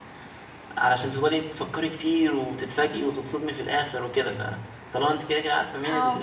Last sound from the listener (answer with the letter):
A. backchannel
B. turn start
A